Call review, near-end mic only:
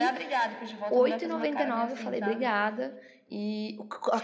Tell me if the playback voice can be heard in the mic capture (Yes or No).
Yes